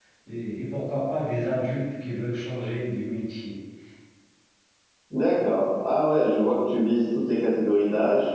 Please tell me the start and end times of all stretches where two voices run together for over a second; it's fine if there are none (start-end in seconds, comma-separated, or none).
none